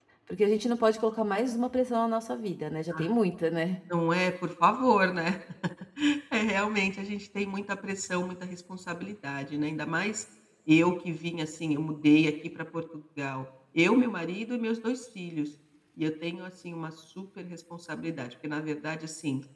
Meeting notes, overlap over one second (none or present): none